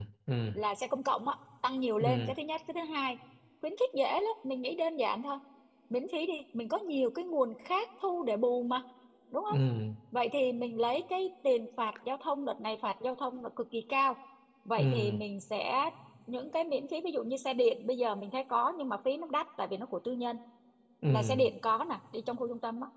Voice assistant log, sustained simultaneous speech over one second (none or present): none